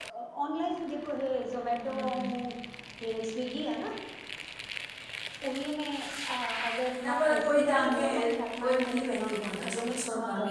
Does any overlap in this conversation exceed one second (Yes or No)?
Yes